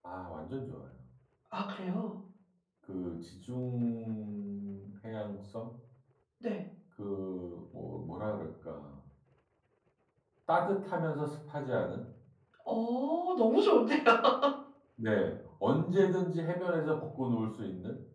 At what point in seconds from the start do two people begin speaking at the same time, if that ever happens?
none

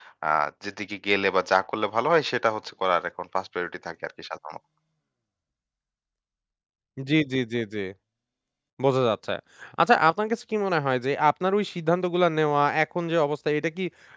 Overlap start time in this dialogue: none

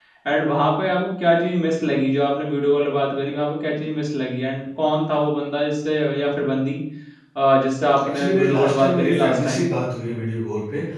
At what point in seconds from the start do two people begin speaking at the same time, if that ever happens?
8.1 s

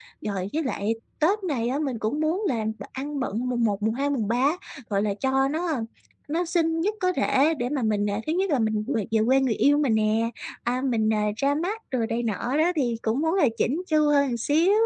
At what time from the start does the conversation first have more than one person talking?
none

